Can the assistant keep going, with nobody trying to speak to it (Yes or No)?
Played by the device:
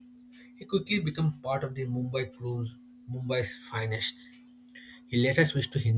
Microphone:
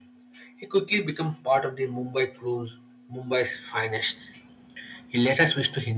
Yes